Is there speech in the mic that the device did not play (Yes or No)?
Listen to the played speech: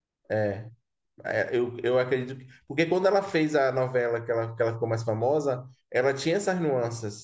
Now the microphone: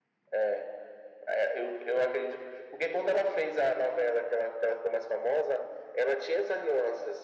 No